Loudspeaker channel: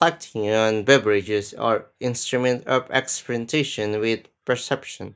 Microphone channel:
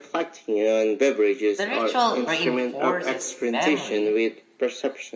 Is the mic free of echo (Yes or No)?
No